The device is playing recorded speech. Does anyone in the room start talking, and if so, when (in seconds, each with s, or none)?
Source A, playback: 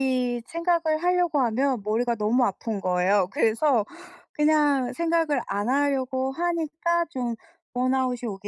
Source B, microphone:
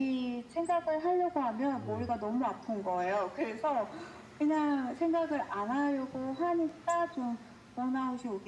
1.7 s